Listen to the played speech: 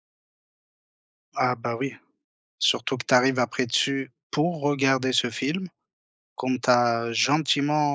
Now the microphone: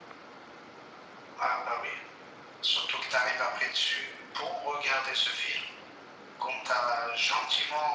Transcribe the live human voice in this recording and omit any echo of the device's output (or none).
none